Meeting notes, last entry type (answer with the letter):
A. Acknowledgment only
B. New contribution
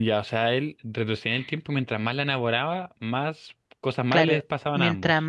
B